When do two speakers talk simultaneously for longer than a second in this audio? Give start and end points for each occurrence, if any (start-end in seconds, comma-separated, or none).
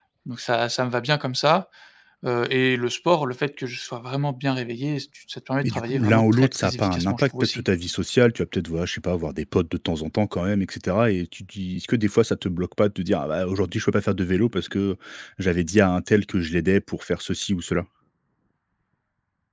5.6-7.7